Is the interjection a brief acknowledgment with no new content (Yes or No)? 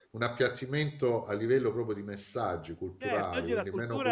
No